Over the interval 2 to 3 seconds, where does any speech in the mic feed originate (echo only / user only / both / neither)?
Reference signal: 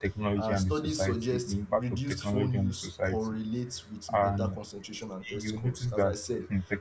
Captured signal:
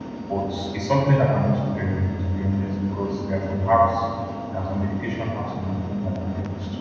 user only